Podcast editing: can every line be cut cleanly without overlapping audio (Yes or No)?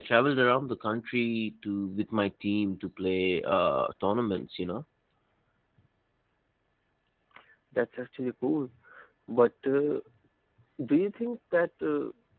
Yes